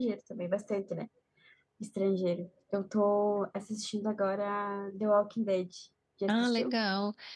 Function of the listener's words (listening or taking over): taking over